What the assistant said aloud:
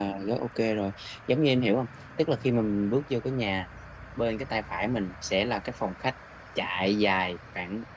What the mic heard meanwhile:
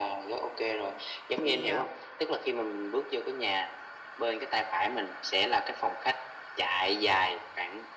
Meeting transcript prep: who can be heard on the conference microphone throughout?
both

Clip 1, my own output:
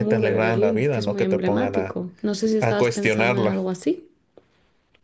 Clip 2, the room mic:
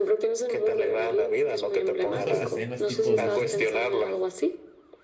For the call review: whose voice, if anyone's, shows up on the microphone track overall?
both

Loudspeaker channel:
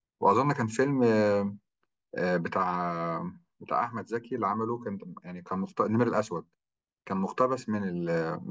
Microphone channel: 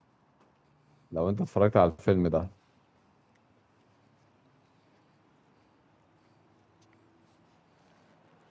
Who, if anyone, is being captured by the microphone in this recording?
user only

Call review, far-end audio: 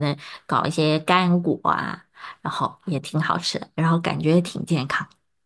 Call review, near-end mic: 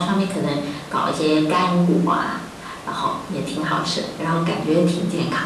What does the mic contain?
echo only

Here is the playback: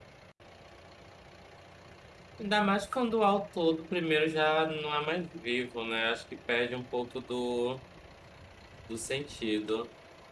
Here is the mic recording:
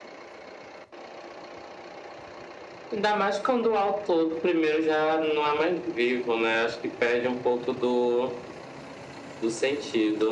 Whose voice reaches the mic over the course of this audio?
echo only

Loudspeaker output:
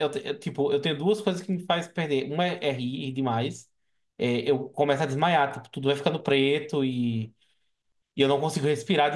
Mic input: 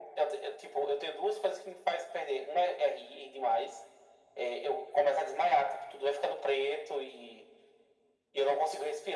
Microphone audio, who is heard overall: echo only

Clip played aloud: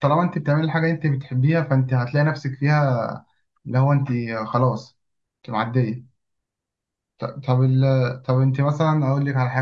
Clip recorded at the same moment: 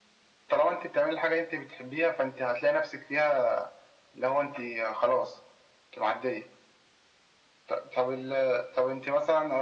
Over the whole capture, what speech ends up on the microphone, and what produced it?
echo only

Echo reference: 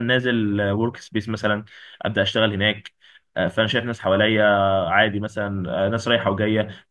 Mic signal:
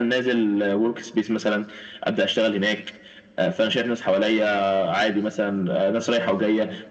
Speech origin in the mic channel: echo only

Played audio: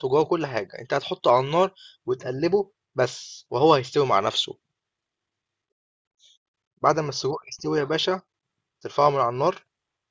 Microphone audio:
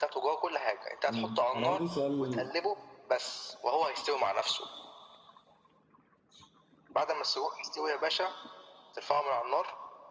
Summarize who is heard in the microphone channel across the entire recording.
both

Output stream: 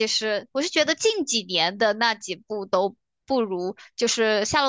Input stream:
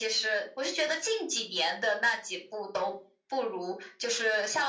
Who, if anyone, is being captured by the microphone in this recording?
echo only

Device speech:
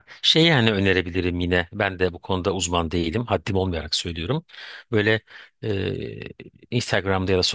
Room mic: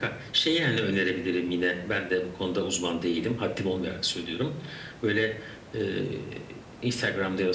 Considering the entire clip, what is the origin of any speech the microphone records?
echo only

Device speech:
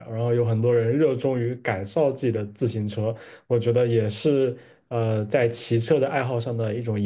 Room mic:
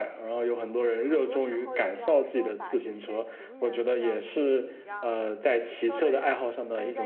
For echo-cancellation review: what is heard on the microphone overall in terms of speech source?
both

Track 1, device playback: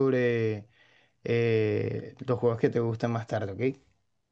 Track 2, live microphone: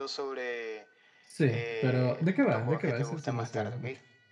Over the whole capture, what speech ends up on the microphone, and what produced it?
both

